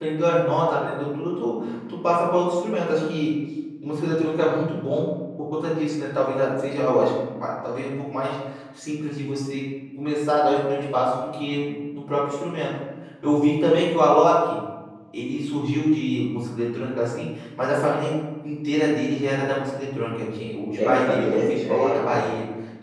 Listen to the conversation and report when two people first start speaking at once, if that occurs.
21 s

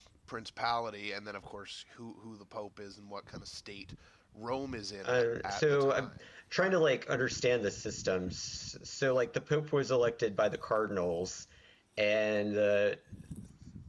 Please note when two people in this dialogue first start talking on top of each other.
5 s

